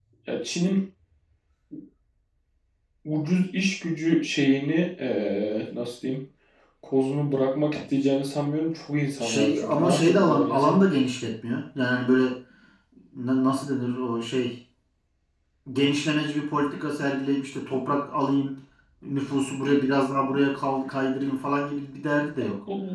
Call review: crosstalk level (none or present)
present